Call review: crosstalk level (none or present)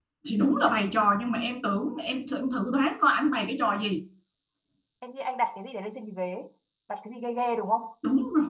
none